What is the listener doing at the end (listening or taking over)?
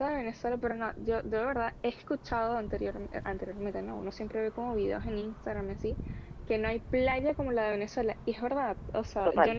listening